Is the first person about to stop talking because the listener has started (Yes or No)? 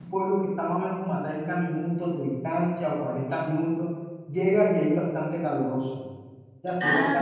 No